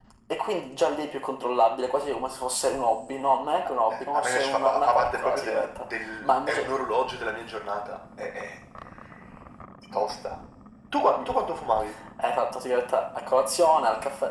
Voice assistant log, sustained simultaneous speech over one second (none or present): present